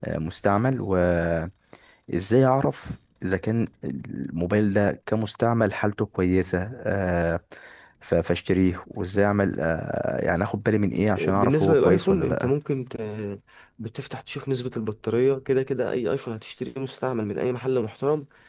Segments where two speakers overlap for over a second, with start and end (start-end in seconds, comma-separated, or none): 11.2-12.5